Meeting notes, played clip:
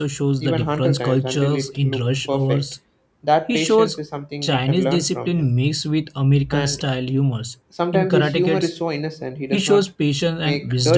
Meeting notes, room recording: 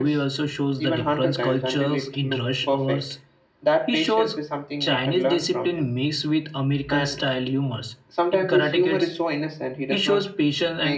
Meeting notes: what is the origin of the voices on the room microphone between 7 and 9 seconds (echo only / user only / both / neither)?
echo only